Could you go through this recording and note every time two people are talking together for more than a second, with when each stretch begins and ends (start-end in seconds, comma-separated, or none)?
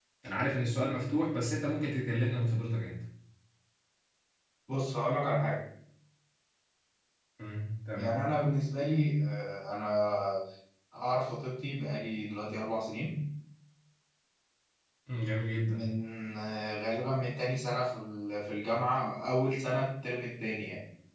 none